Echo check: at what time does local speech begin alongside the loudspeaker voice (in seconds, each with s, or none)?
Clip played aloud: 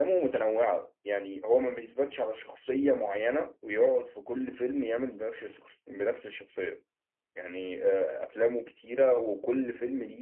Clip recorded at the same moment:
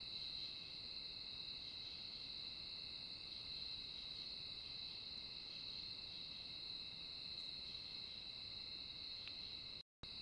none